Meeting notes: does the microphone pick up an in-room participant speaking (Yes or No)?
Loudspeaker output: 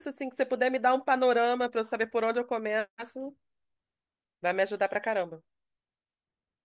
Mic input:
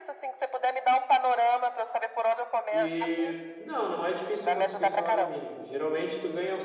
Yes